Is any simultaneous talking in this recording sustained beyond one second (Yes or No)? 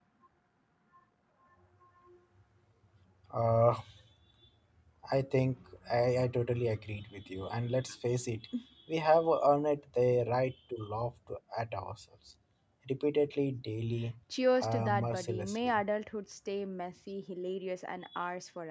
Yes